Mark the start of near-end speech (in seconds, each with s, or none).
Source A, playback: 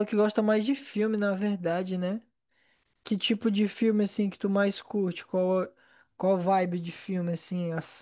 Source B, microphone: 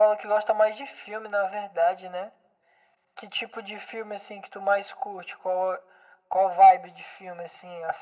none